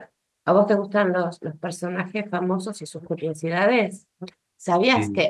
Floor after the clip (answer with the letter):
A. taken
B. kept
B